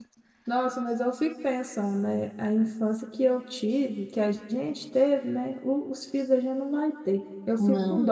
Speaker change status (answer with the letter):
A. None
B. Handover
A